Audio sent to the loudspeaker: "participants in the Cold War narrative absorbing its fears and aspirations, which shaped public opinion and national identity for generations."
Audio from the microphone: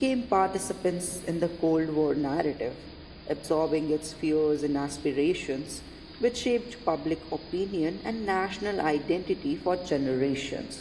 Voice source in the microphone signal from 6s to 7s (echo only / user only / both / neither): echo only